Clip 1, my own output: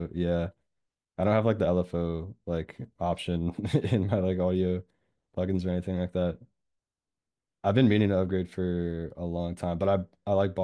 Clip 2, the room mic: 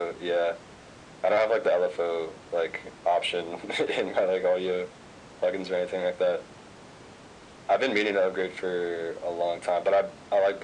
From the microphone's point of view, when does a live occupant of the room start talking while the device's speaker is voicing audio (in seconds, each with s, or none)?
none